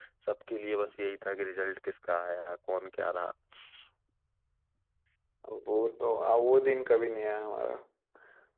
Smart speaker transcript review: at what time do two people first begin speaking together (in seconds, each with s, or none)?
none